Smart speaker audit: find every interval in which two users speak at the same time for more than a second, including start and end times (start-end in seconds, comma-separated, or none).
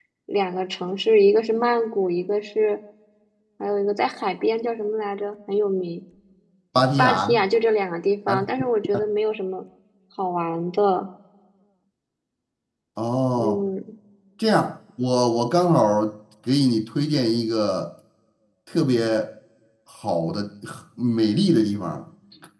none